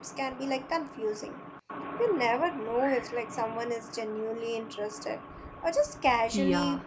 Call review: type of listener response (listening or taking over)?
taking over